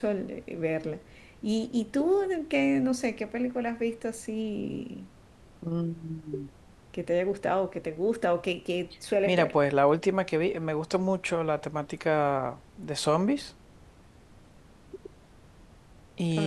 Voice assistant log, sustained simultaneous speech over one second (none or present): none